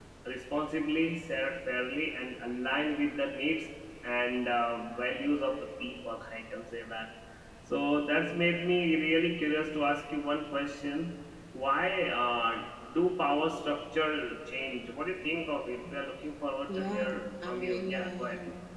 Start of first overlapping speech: 16.7 s

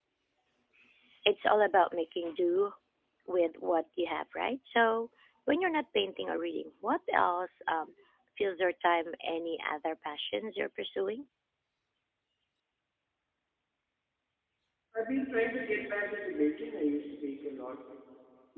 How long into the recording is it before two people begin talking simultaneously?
none

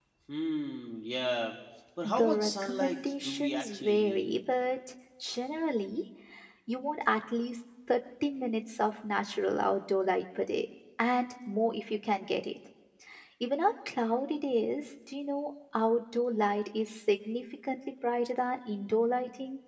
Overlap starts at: 2.0 s

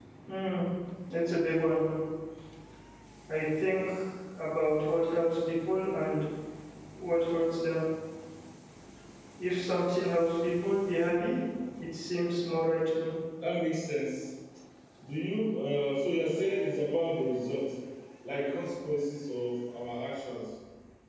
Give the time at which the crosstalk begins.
none

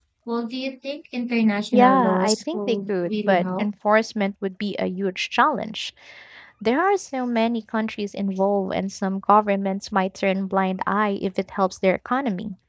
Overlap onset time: 1.7 s

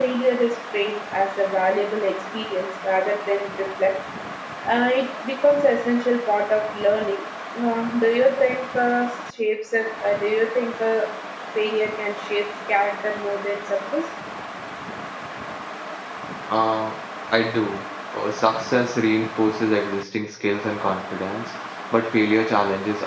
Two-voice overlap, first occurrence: none

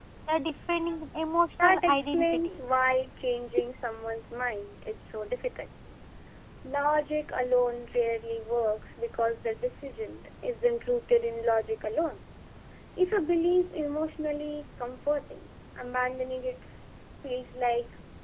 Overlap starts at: 1.6 s

